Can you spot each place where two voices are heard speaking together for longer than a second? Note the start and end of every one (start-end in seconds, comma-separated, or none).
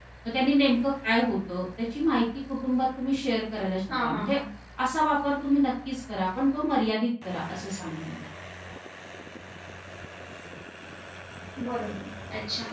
none